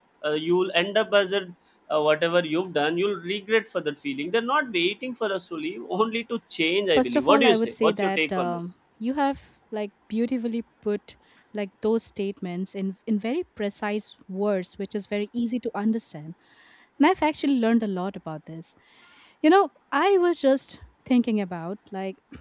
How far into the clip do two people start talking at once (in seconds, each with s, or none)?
7.0 s